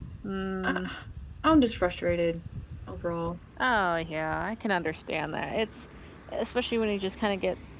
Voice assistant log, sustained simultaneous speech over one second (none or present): none